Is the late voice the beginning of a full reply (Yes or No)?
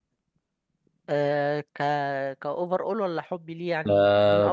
Yes